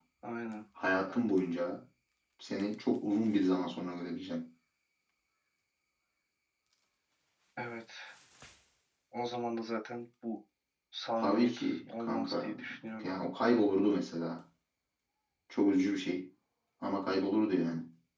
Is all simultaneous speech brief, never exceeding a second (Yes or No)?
No